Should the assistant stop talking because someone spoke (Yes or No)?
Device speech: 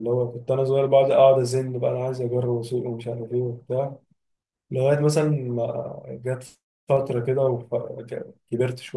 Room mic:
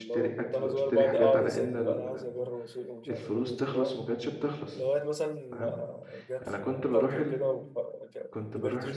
Yes